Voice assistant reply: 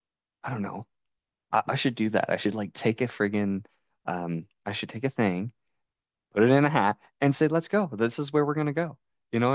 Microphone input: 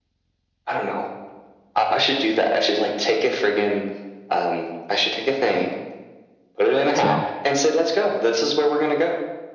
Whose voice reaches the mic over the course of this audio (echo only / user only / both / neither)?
both